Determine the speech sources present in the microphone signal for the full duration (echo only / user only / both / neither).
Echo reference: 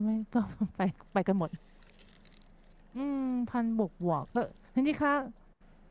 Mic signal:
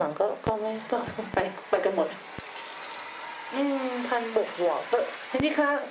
echo only